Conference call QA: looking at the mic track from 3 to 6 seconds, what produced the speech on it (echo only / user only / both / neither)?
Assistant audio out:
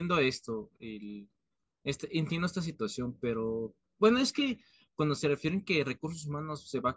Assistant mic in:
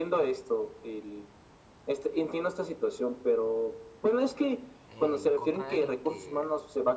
both